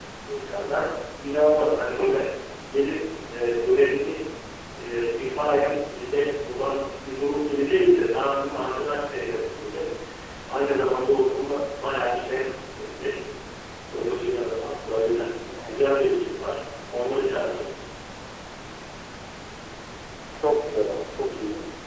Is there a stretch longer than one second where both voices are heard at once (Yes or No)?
No